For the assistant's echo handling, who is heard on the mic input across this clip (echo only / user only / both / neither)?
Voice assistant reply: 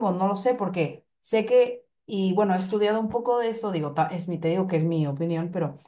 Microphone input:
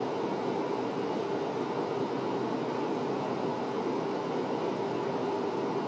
neither